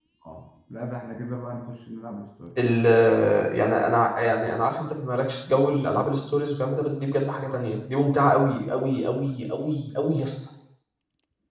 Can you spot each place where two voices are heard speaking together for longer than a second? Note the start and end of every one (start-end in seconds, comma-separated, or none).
none